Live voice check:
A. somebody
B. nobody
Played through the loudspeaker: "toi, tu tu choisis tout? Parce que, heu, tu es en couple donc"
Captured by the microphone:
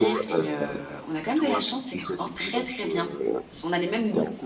A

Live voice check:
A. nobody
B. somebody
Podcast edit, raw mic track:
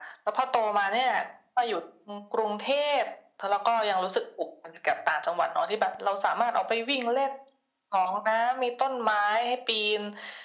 A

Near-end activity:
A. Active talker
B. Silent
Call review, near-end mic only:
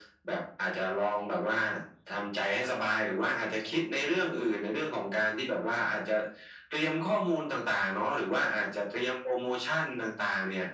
B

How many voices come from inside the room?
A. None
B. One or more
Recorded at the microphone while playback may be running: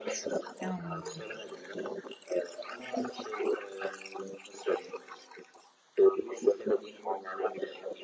B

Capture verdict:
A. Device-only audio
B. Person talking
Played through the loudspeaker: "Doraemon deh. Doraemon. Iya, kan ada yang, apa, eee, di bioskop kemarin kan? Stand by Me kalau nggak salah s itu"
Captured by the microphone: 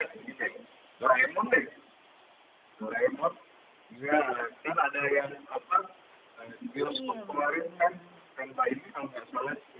B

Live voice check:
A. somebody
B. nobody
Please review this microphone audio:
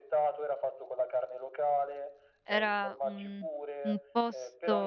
A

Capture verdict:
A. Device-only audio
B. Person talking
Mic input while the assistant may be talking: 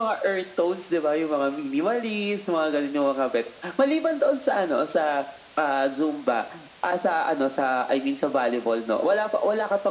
A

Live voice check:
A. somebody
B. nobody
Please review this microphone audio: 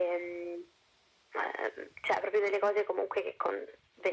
B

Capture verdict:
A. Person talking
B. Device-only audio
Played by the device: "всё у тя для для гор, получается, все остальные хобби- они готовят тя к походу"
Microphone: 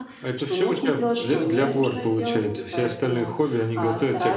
A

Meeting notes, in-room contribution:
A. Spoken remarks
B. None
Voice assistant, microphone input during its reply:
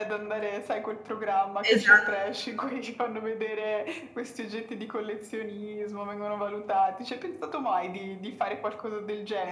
A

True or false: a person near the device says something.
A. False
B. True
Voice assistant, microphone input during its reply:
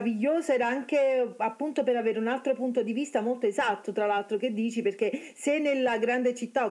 A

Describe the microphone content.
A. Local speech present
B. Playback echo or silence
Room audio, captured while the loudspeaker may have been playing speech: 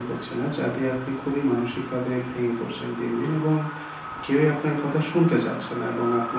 B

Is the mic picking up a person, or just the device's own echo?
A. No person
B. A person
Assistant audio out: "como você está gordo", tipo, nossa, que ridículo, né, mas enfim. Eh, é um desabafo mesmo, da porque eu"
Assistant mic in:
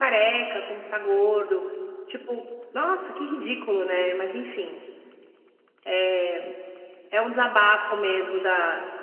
A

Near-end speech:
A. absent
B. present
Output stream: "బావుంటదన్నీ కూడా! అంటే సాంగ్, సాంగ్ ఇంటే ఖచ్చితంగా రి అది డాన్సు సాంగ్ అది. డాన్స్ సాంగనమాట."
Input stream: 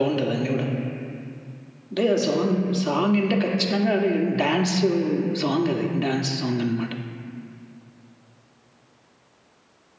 A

